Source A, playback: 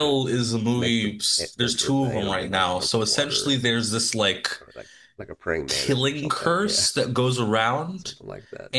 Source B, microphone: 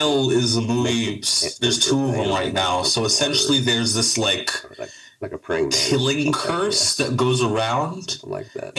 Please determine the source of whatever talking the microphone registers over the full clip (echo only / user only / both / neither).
echo only